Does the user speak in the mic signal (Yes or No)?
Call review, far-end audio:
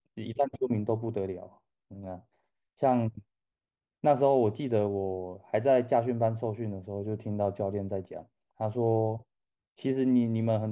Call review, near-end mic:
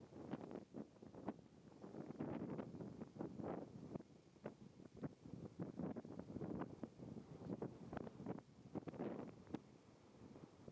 No